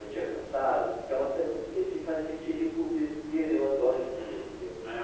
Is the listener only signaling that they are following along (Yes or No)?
No